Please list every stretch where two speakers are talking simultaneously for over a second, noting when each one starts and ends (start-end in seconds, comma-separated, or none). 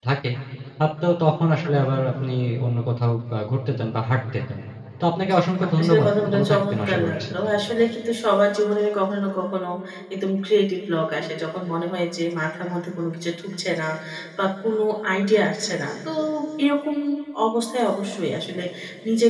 5.8-7.2